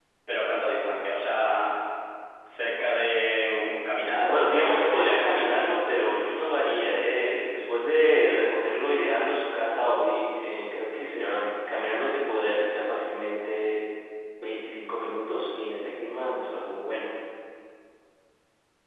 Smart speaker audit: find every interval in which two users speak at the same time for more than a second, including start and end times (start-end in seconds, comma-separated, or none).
4.2-5.4